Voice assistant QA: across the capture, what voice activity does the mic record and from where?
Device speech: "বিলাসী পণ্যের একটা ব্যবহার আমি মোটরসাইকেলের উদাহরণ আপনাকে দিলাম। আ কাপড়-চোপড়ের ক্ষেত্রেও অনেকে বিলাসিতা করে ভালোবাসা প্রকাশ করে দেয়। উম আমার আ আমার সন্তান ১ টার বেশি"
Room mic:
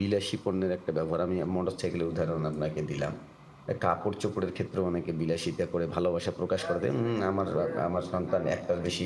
both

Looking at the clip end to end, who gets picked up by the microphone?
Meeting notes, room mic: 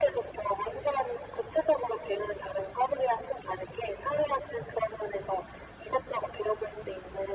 echo only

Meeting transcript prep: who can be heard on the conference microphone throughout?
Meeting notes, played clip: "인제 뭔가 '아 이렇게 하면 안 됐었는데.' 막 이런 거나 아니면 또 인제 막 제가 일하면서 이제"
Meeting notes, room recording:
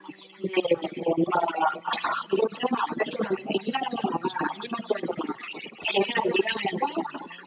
echo only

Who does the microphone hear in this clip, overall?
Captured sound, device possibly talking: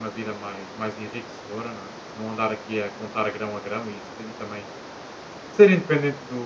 user only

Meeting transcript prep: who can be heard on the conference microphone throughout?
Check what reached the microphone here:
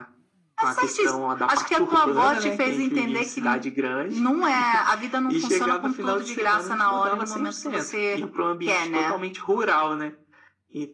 echo only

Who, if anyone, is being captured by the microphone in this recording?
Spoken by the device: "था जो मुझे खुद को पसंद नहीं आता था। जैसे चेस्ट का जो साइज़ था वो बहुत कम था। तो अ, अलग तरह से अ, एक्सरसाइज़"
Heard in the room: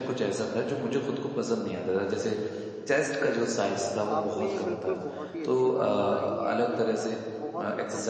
both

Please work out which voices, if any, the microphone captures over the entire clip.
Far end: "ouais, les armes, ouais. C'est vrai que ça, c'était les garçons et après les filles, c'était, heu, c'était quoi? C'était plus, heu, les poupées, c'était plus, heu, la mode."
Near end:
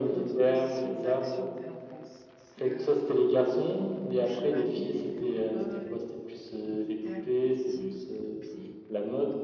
both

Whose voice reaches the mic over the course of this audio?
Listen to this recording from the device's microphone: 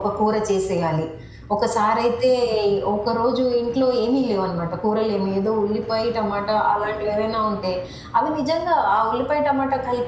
echo only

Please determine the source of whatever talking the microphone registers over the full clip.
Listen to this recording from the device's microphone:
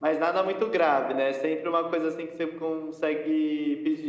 echo only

